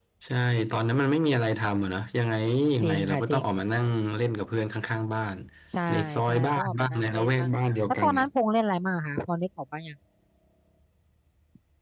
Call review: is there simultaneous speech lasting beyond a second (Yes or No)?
Yes